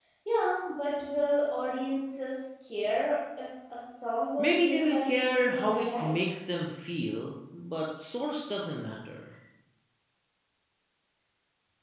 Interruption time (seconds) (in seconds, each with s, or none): 4.4 s